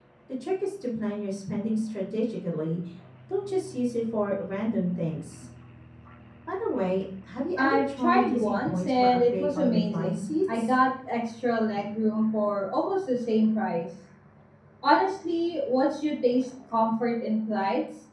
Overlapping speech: Yes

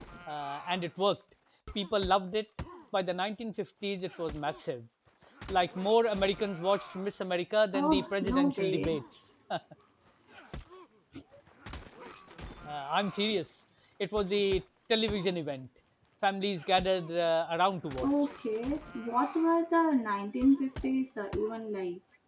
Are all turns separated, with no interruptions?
No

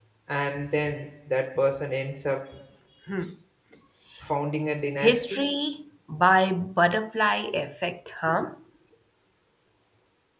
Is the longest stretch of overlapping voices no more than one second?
Yes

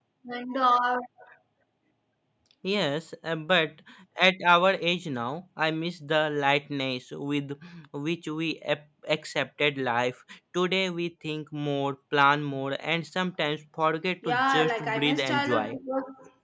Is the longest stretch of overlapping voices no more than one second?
No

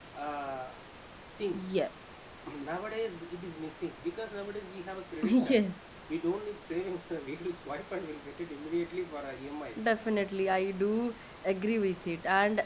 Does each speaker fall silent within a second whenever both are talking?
Yes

